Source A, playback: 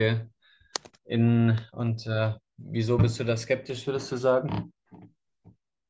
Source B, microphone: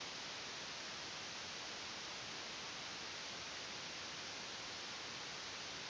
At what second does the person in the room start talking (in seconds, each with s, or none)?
none